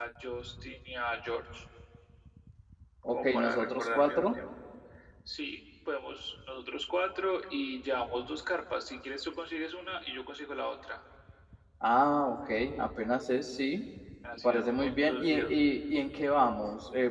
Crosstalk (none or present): present